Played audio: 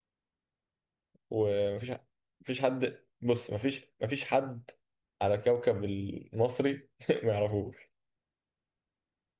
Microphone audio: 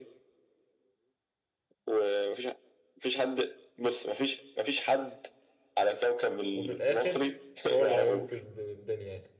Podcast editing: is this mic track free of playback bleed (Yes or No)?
No